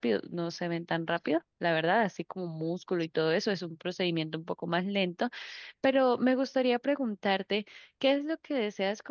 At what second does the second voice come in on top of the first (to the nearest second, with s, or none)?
none